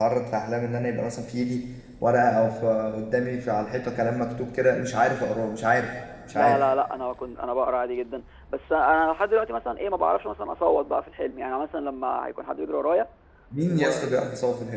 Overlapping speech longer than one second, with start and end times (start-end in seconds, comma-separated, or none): none